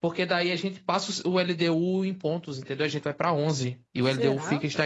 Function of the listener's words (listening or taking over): listening